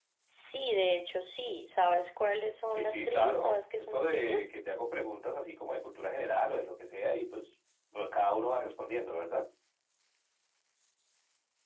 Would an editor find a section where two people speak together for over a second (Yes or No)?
Yes